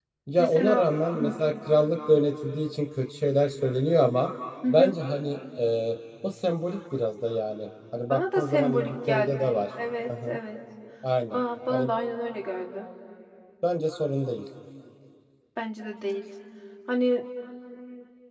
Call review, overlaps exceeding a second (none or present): present